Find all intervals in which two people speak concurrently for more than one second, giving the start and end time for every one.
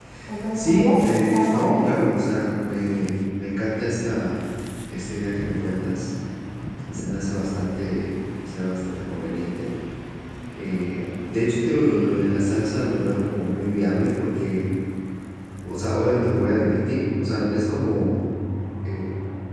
0.5-1.9

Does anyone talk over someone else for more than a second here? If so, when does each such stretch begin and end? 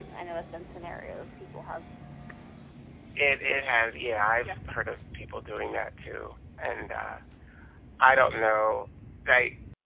none

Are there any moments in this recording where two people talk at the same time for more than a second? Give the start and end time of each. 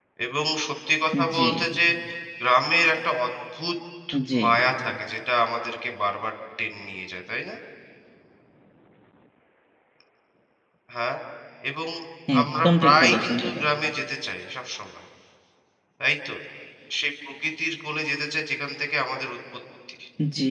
12.4-13.6

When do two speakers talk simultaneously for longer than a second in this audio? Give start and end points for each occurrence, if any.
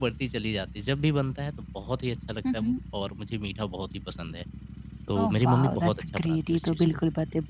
5.2-6.8

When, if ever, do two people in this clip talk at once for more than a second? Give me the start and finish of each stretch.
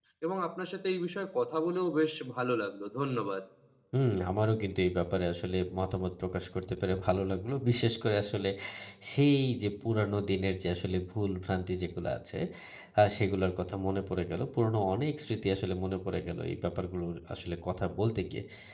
none

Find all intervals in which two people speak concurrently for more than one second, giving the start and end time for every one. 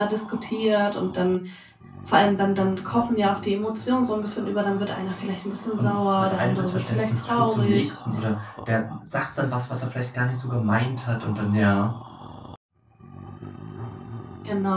5.8-7.9

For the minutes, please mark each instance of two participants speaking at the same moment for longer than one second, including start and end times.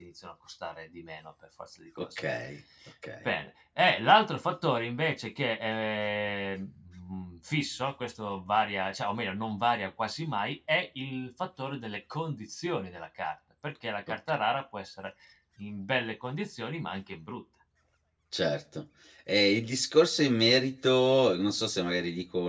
none

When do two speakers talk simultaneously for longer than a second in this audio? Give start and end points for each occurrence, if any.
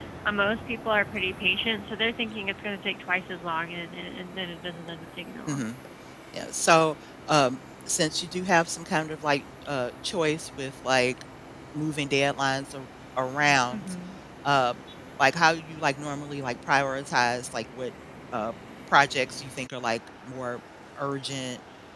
none

